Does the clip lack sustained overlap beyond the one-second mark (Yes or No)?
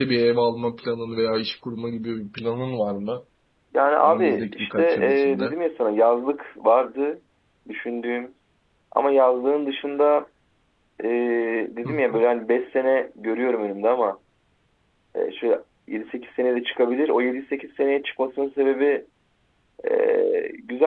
No